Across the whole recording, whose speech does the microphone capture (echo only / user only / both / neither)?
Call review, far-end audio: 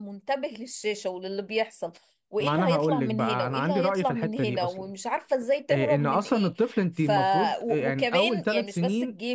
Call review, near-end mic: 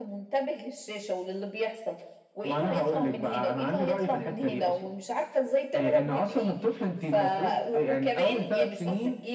echo only